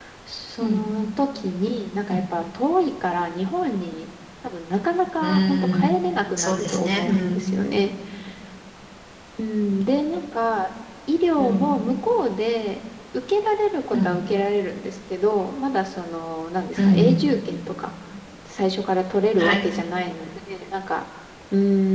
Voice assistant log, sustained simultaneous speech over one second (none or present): present